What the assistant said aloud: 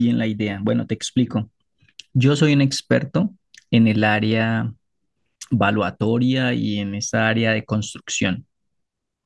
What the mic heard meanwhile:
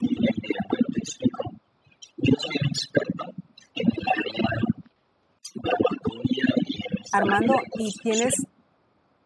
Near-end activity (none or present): present